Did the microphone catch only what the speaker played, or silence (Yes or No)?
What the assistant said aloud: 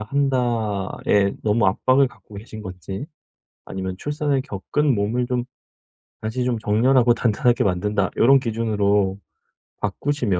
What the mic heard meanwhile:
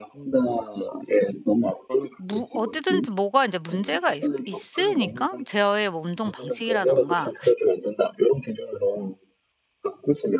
No